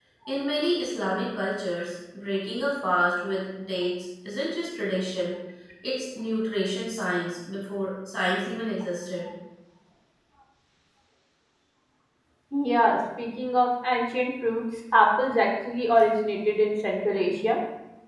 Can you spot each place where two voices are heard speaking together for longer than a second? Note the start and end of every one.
none

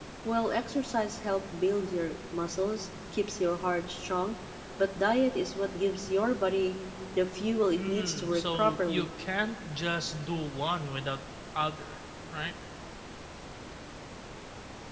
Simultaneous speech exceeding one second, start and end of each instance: 7.8-9.1

